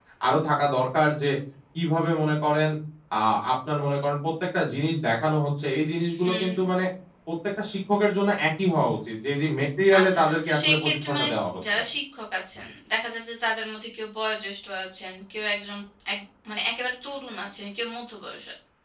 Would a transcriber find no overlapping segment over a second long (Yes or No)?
No